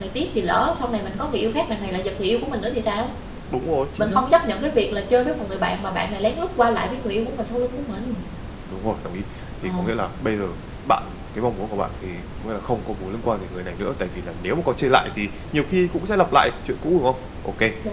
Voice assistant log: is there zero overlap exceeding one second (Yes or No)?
Yes